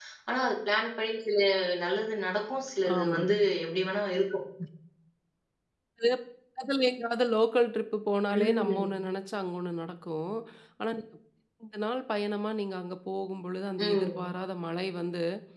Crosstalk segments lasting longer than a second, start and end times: none

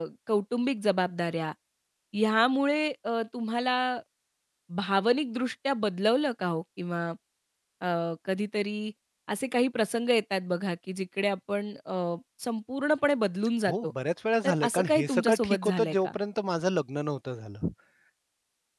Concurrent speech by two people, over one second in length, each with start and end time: 14.4-16.1

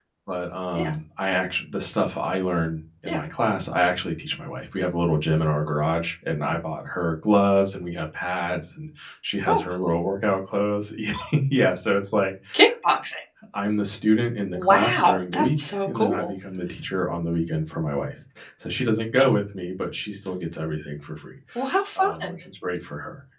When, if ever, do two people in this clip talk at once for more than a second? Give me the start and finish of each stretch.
14.5-16.3

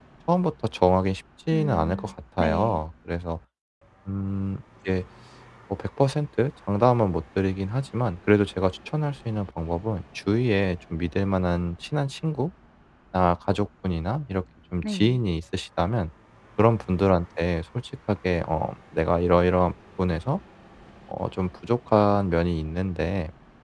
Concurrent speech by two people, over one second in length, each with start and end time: 1.5-2.8

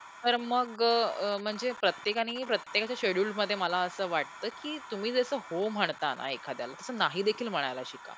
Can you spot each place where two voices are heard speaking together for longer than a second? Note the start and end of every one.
none

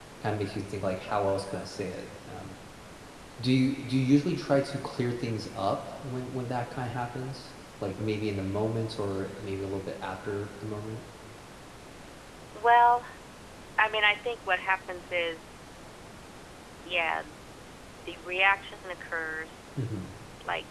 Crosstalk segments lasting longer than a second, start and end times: none

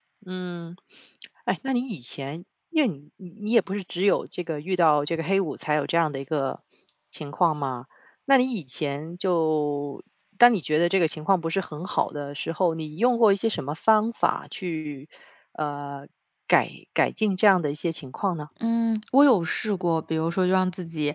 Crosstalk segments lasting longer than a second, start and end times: none

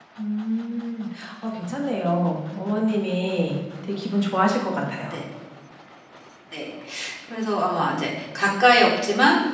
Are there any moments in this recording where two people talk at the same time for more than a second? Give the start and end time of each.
none

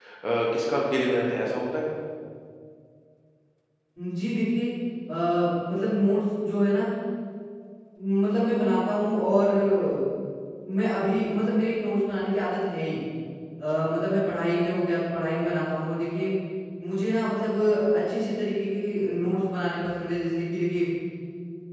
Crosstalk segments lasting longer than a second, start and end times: none

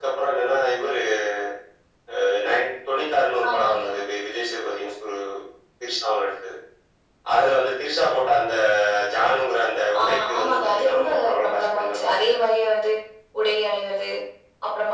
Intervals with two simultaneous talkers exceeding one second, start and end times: 10.0-12.3

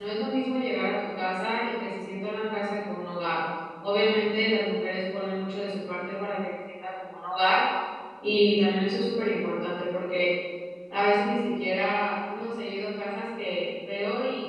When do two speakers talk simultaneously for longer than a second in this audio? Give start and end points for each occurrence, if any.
none

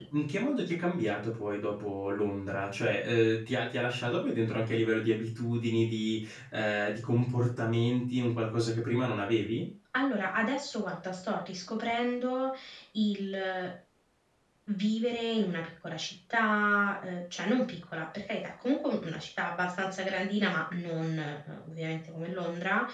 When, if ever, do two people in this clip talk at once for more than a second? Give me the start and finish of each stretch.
none

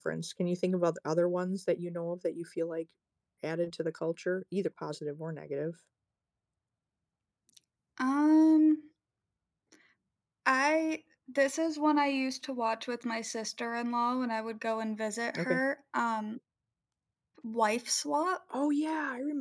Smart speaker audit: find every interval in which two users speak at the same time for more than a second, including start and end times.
none

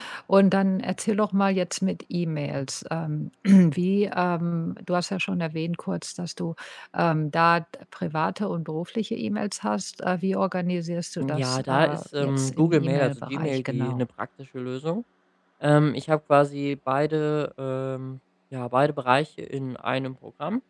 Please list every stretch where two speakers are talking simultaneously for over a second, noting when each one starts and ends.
11.3-14.0

